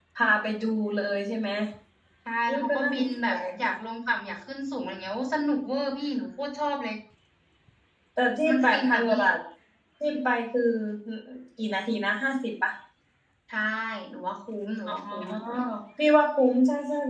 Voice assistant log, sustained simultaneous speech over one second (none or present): present